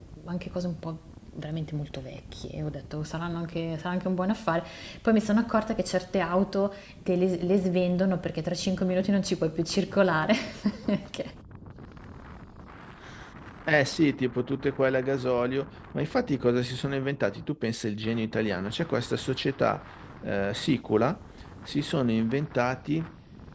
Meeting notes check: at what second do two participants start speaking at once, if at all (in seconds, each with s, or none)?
none